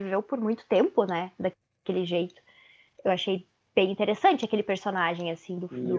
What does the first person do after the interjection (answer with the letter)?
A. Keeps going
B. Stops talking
B